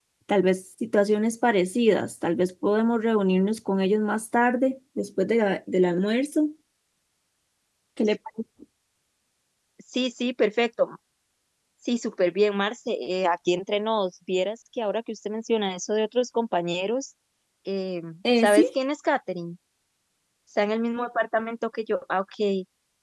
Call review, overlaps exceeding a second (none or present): none